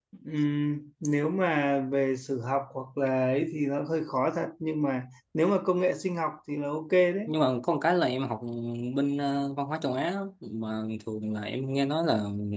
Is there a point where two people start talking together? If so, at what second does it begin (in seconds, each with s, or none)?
none